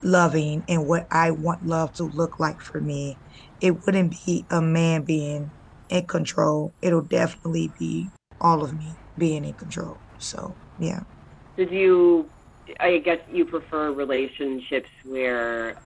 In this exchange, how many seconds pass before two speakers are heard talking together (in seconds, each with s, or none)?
none